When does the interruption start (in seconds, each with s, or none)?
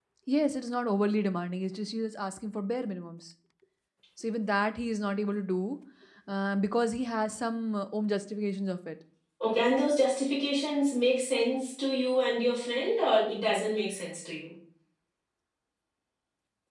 none